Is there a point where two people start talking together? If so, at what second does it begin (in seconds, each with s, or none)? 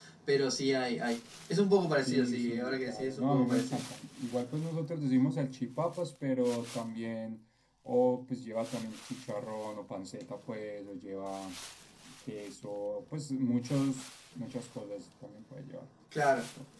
2.0 s